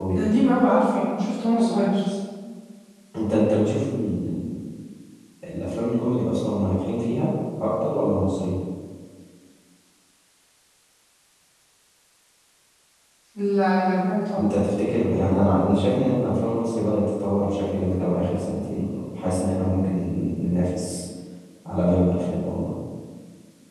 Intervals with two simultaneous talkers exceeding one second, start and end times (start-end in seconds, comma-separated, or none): none